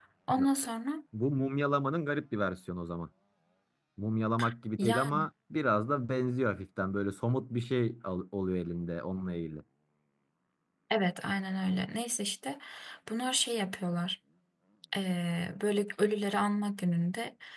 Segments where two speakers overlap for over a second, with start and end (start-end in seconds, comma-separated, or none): none